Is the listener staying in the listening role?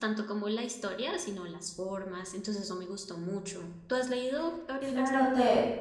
No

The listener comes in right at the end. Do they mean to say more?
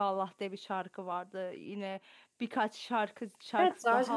Yes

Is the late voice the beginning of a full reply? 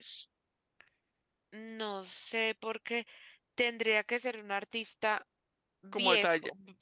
Yes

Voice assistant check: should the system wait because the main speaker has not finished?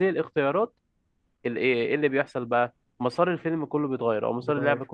Yes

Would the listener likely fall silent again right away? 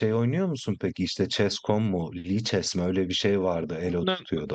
No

